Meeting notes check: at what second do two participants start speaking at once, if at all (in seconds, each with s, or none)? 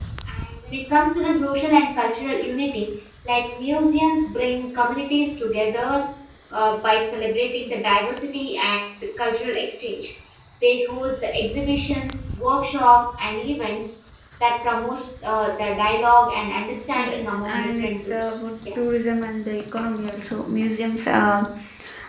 16.9 s